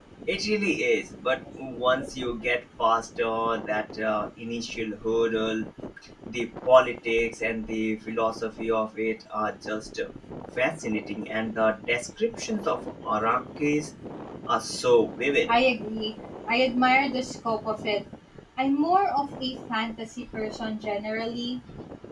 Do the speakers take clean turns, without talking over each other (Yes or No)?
Yes